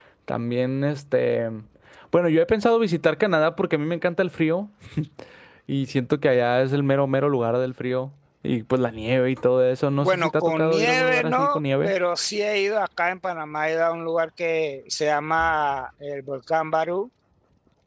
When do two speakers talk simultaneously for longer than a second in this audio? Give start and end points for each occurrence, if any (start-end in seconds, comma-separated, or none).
10.0-11.9